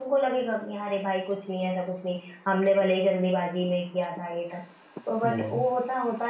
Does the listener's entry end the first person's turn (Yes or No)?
No